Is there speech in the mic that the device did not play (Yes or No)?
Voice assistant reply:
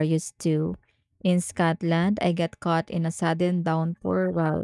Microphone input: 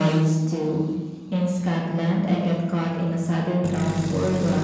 No